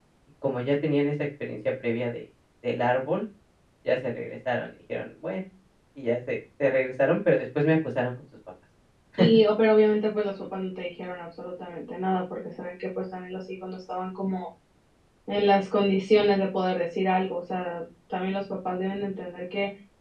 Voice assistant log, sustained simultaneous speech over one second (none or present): none